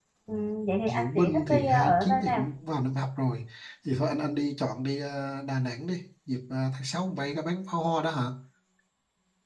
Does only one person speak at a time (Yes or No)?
No